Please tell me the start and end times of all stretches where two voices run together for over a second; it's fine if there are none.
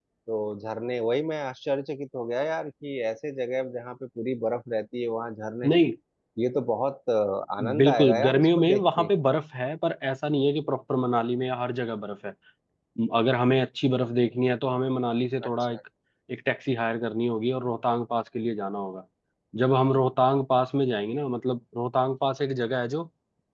7.8-9.1

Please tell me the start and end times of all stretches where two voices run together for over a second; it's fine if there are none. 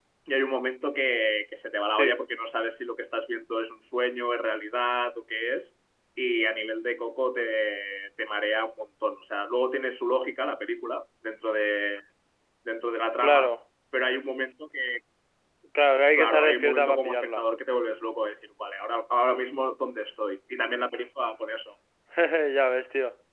16.2-17.4

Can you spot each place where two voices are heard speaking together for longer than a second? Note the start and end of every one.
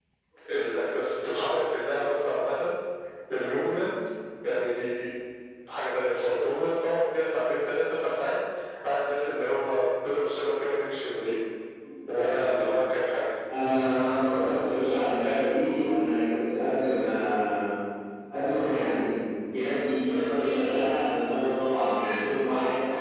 none

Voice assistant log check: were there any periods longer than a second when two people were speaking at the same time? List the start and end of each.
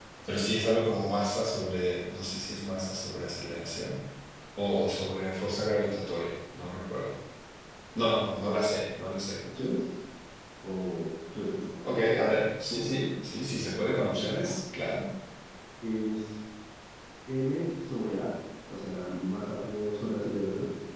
none

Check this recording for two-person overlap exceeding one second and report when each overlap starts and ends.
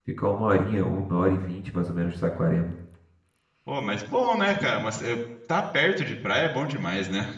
none

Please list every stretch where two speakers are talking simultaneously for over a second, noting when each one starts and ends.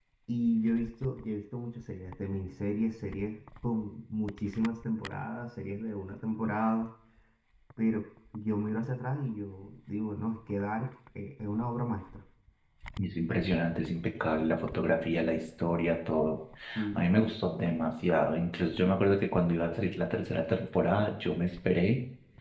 none

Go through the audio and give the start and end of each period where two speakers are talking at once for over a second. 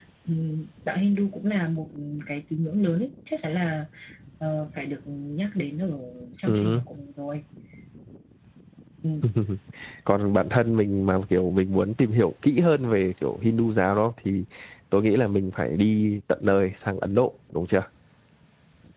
none

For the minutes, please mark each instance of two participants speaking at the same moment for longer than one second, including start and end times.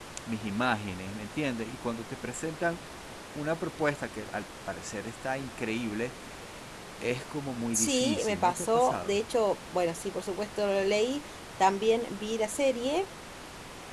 7.7-9.2

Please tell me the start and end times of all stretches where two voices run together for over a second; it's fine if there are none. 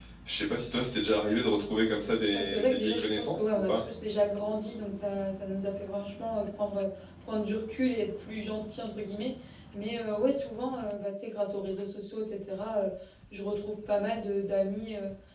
2.3-3.8

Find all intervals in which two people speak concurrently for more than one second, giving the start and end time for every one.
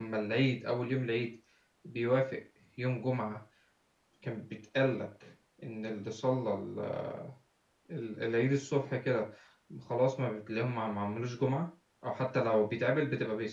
none

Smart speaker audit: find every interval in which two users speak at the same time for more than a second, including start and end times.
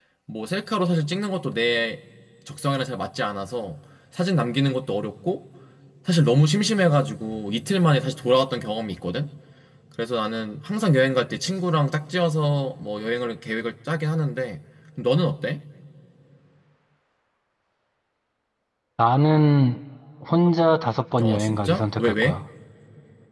21.2-22.4

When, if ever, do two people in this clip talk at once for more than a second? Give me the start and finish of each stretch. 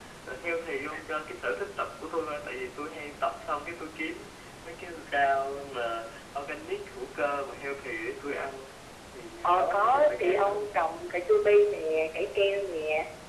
9.4-10.7

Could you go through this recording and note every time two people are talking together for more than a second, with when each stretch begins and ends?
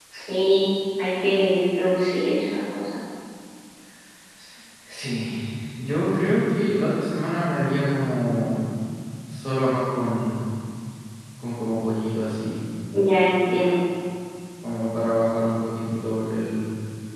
none

